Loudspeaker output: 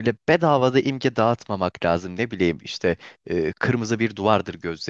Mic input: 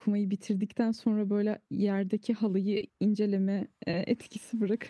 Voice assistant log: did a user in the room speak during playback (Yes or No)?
Yes